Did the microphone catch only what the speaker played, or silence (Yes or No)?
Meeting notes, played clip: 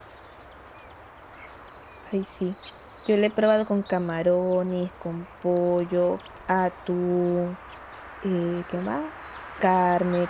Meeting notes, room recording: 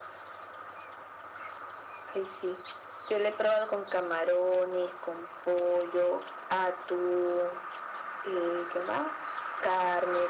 Yes